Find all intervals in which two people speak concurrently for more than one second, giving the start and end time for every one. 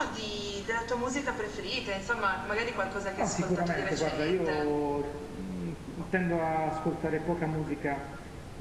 3.2-4.7

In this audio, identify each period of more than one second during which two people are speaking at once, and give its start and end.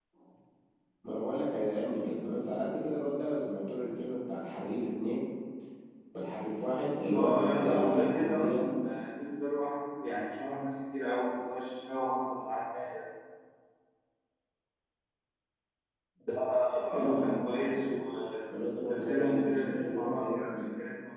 7.2-8.7, 18.9-20.6

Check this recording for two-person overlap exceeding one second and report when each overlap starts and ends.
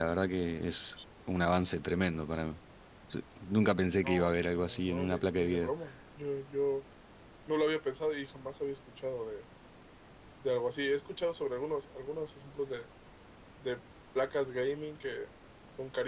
4.0-5.7

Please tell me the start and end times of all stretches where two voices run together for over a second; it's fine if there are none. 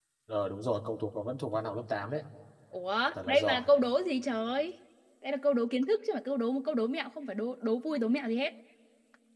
none

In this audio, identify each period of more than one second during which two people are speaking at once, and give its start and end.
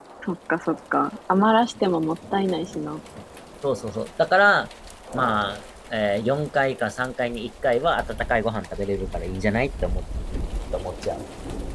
none

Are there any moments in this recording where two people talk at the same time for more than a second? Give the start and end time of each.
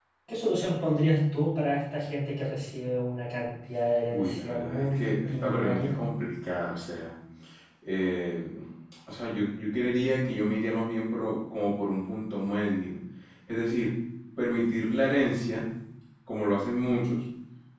4.1-6.0

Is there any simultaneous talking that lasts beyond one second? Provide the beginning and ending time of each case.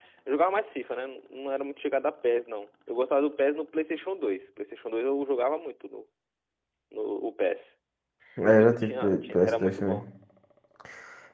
8.4-10.0

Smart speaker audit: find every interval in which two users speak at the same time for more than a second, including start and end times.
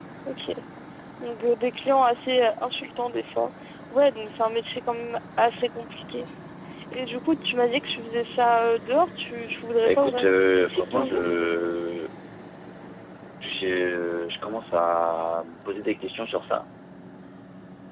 9.8-11.2

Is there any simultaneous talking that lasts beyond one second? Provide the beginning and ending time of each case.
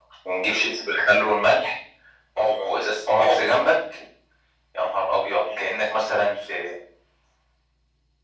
2.4-3.7

